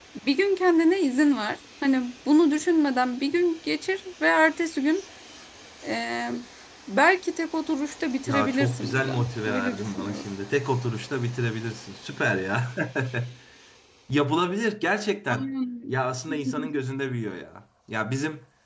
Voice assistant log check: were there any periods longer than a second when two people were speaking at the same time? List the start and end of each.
8.3-10.2

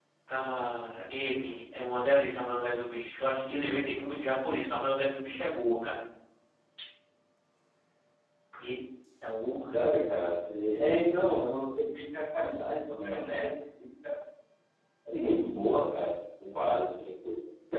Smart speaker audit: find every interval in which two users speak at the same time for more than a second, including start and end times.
none

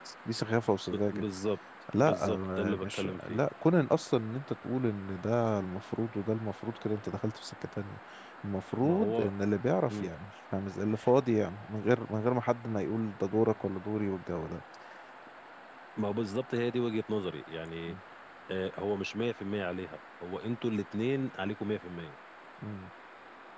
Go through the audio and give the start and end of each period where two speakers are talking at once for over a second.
2.0-3.4

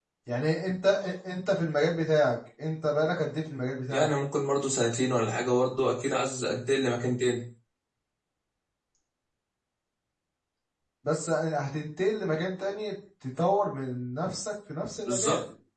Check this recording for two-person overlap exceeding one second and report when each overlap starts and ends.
none

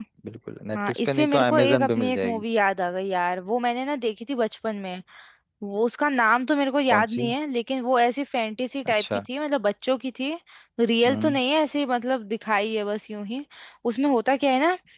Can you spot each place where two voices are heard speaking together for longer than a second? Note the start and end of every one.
0.7-2.4

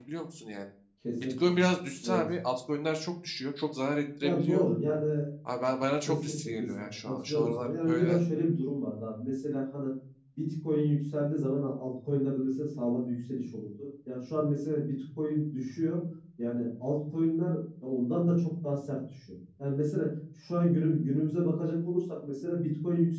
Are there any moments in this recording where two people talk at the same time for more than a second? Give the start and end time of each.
6.1-8.2

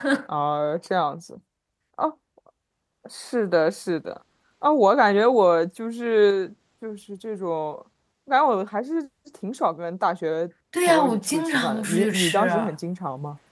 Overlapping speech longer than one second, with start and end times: 10.9-12.5

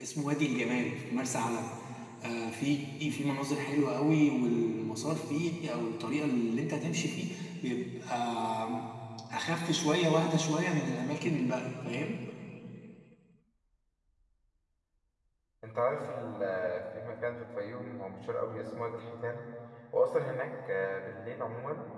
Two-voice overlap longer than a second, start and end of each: none

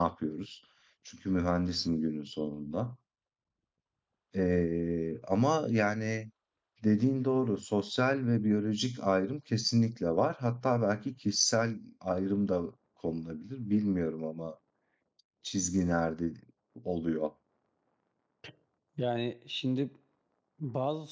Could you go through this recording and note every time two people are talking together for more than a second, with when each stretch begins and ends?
none

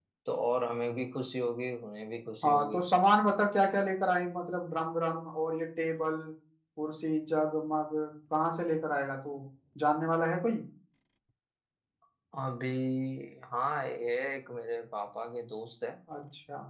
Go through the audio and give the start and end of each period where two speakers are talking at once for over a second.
none

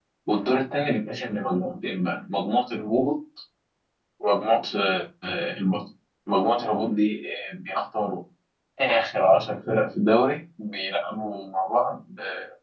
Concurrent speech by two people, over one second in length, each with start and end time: none

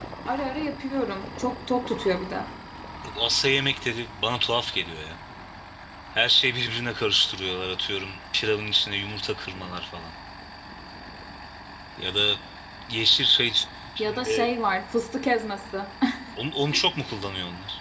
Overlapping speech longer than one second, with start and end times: none

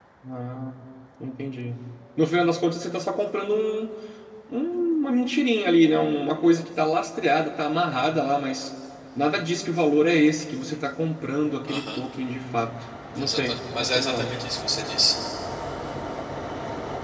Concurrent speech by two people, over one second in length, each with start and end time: 13.2-14.4

